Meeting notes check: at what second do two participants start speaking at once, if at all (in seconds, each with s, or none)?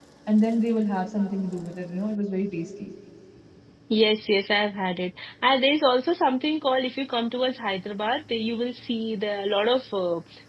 none